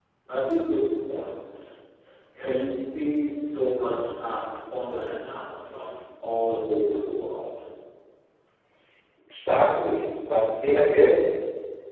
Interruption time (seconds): none

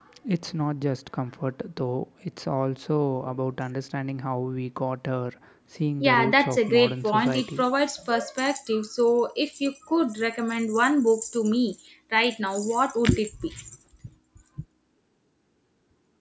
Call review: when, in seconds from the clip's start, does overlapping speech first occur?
6.0 s

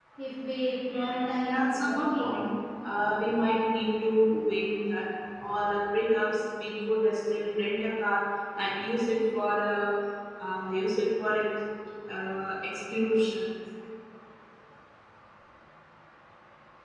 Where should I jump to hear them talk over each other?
0.9 s

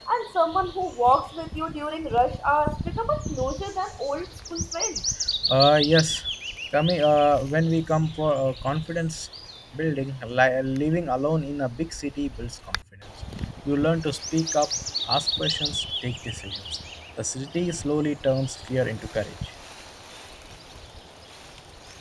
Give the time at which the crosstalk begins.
none

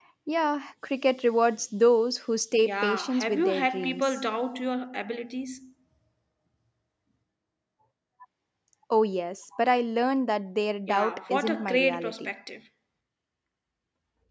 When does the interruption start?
2.6 s

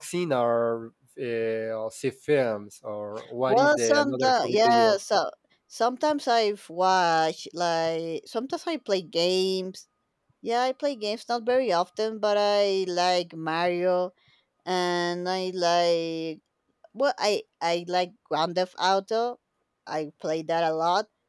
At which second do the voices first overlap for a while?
3.5 s

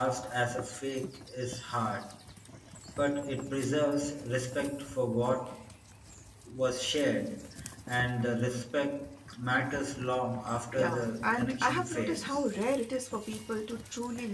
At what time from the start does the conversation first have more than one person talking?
10.7 s

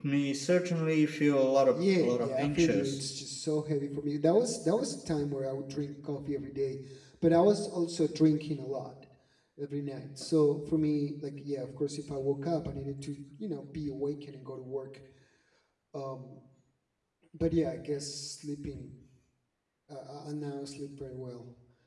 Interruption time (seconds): 1.7 s

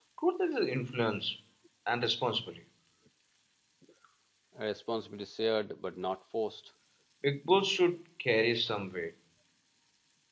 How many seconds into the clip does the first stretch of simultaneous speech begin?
none

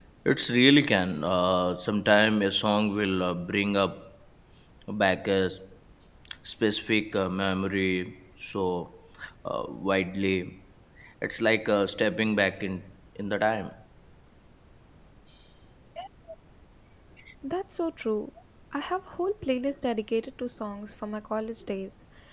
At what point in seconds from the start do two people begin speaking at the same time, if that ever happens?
none

